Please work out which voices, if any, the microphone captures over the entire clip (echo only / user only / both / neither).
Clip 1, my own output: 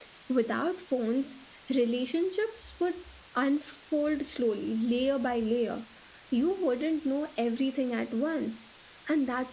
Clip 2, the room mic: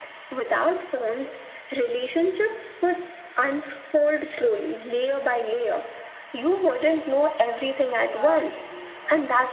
both